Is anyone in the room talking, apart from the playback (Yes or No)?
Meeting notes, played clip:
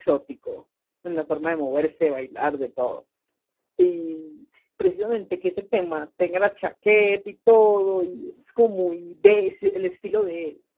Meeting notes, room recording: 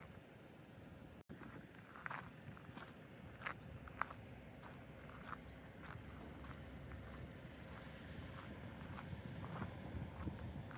No